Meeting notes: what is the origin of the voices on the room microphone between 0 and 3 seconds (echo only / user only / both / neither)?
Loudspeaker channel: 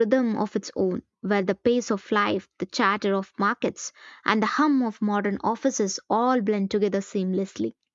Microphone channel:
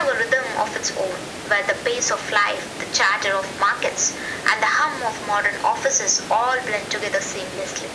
echo only